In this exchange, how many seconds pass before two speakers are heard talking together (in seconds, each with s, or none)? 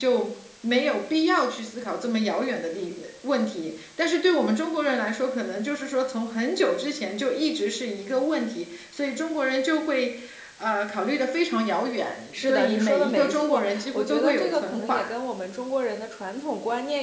12.3 s